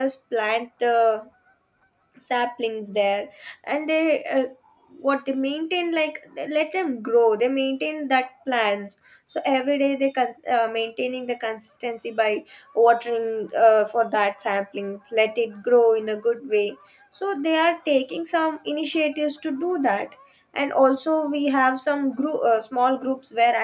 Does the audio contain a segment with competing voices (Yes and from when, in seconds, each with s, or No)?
No